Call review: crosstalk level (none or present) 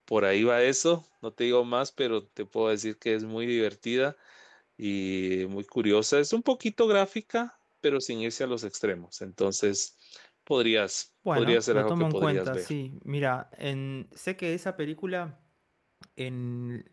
present